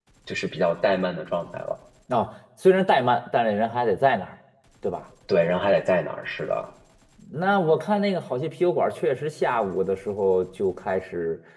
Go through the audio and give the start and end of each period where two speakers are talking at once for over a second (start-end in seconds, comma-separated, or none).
none